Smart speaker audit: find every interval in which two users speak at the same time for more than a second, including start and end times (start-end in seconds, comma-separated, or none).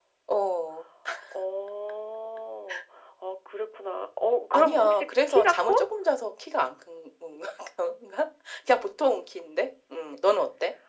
4.5-5.7